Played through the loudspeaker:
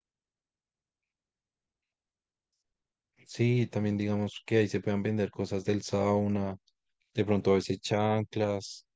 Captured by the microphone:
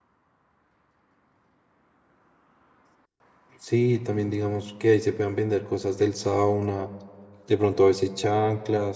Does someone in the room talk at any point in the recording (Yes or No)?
No